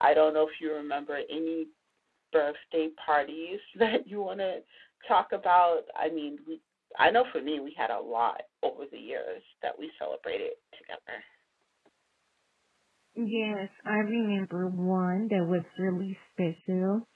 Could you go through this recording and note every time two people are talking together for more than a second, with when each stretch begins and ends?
none

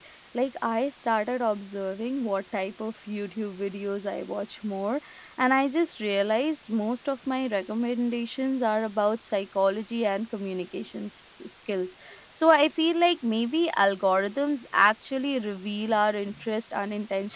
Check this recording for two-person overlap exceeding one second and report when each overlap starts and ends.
none

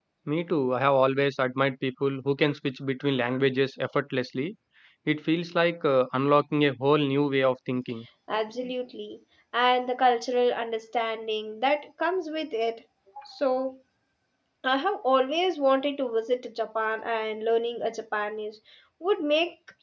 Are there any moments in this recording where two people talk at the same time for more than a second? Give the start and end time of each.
none

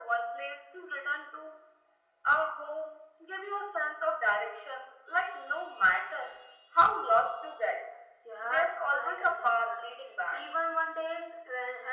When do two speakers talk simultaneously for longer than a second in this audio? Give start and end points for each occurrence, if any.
8.4-9.8

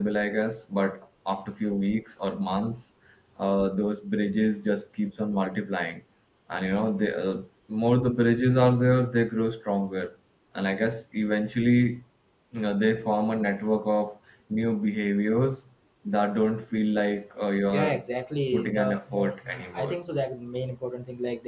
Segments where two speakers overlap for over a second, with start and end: 18.5-19.9

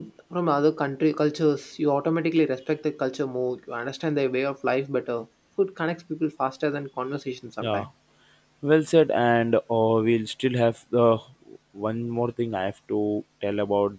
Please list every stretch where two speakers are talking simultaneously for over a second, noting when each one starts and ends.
none

